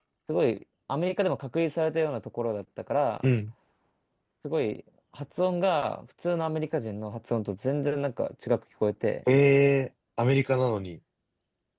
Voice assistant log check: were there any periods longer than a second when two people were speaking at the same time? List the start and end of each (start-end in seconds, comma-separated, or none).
none